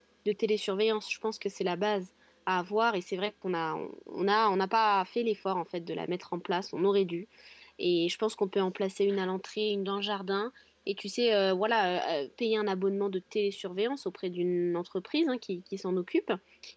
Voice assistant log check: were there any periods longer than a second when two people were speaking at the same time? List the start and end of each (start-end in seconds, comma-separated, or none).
none